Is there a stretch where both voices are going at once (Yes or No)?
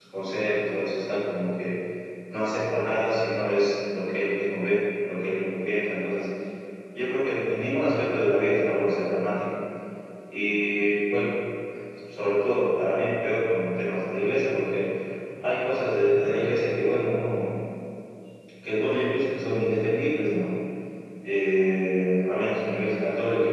No